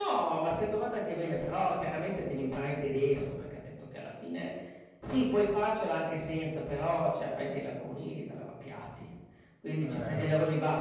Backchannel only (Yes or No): Yes